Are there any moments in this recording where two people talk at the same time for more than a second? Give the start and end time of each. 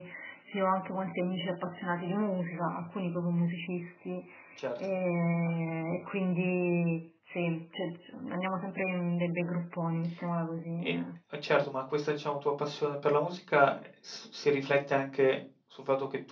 none

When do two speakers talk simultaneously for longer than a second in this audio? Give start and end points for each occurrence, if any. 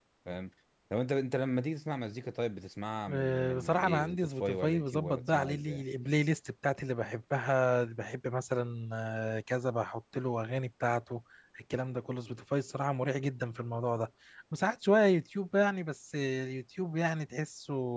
3.1-5.8

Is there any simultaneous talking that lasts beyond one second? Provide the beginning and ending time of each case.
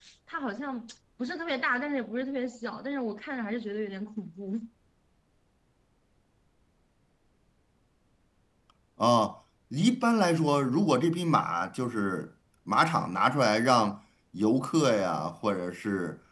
none

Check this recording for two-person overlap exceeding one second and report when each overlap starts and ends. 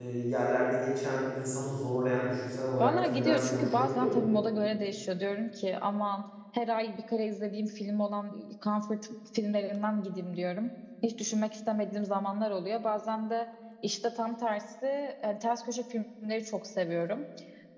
2.8-4.2

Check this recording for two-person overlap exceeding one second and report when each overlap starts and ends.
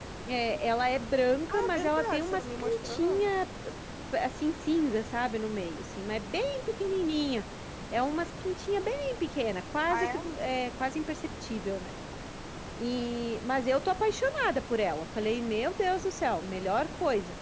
1.5-3.3

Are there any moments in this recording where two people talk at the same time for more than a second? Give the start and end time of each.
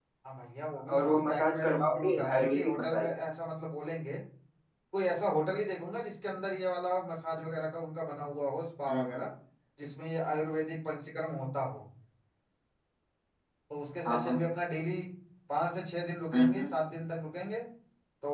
0.9-3.0

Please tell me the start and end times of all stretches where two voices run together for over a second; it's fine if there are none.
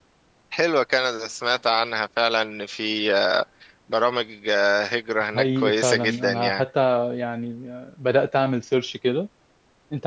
5.3-6.6

